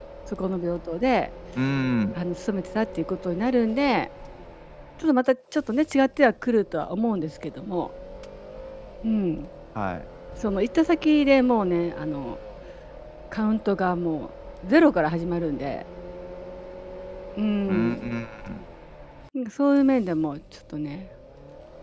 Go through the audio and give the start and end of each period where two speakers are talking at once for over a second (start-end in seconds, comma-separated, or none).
none